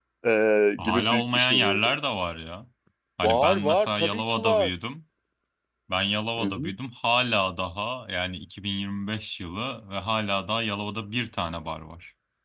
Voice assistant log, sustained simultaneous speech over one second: present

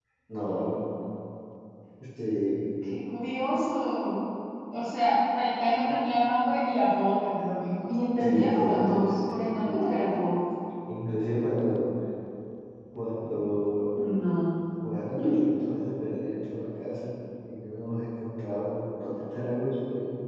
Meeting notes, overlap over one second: present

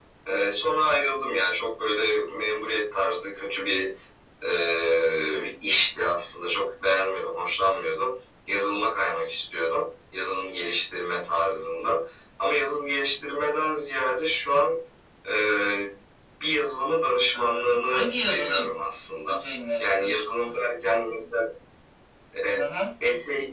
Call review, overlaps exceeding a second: present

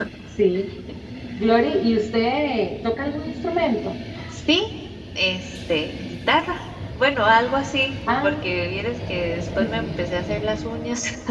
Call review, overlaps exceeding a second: none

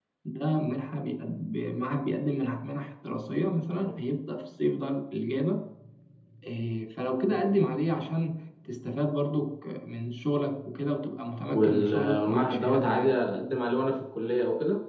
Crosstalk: present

